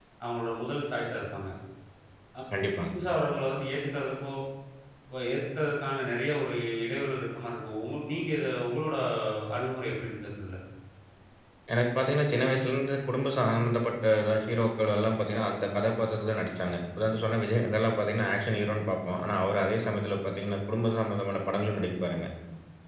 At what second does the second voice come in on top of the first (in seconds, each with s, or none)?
none